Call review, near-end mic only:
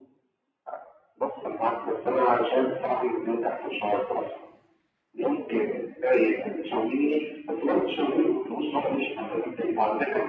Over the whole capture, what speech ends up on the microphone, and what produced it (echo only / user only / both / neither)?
echo only